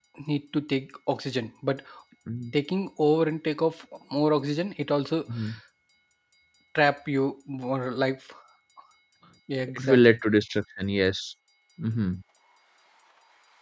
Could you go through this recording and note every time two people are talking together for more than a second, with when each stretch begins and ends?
none

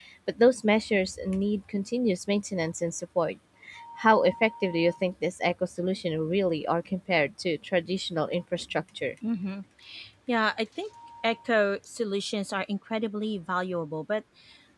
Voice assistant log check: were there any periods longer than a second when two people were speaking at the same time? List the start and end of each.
none

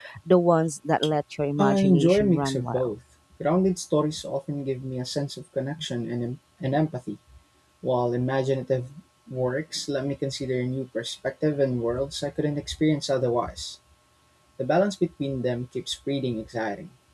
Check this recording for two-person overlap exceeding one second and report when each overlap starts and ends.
1.6-2.9

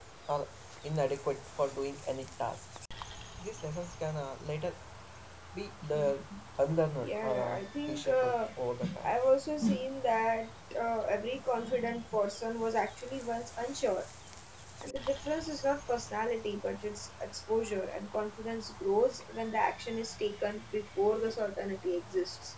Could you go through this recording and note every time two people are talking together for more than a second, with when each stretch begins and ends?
7.0-8.4

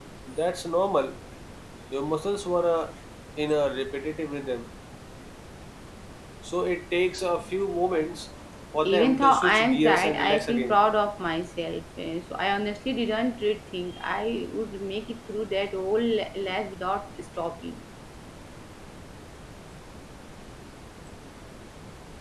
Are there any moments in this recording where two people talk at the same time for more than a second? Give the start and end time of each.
8.8-10.8

